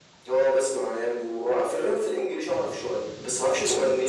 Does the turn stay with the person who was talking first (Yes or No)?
Yes